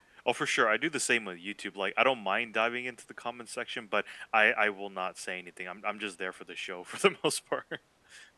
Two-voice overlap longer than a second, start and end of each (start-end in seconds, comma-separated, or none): none